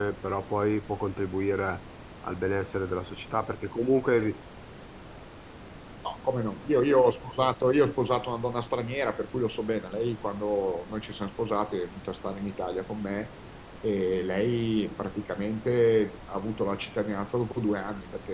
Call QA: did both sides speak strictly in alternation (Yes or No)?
Yes